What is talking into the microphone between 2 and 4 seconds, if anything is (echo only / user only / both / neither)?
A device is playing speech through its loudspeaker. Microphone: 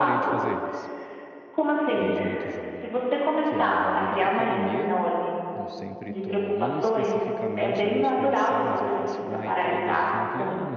both